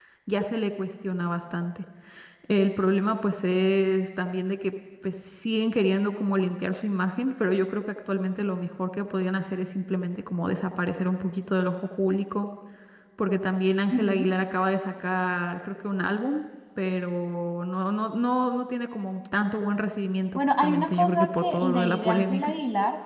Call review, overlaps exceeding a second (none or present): present